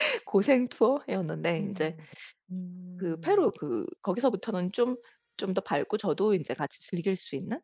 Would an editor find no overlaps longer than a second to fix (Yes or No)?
Yes